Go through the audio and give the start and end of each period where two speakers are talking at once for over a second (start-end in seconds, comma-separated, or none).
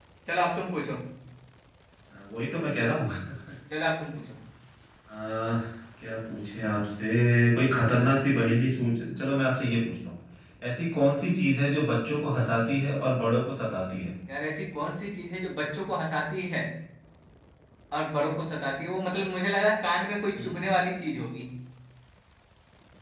none